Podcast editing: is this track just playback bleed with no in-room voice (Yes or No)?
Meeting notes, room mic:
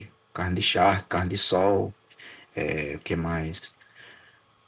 Yes